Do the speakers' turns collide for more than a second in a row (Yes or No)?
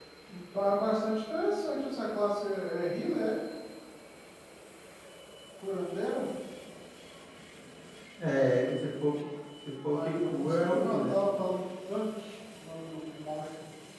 Yes